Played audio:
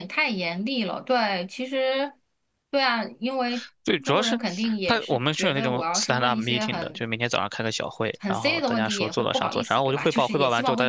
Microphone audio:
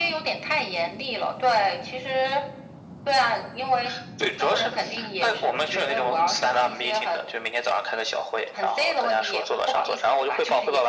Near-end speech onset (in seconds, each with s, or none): none